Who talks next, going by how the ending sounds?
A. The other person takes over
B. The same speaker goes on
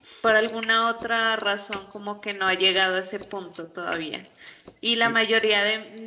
B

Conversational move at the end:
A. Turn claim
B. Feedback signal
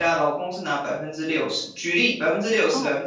B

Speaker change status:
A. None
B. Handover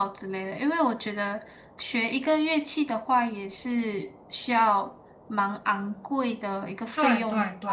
B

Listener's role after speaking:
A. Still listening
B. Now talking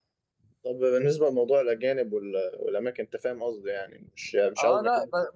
B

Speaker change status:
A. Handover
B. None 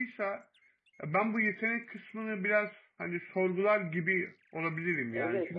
A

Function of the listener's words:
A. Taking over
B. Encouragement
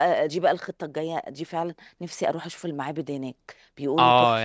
A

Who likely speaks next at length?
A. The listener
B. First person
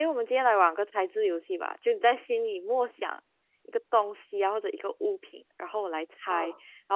B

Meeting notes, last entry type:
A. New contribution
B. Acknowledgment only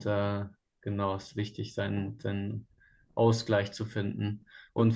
B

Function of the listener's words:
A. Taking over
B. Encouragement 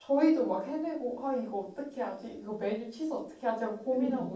B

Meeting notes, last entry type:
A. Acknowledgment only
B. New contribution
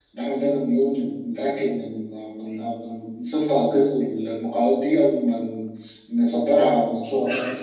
B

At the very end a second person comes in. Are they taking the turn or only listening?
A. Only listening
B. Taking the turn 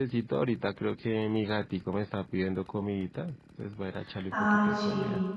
B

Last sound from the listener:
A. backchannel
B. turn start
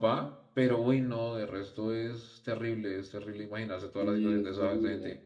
B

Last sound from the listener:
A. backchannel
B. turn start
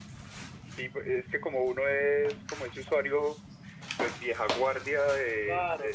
B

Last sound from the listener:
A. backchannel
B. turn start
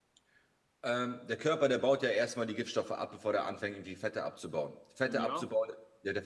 A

